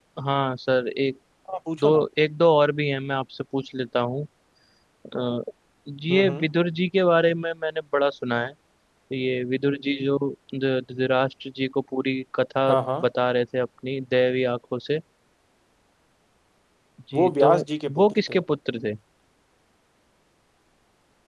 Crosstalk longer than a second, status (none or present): none